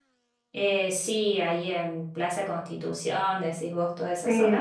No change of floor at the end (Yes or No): No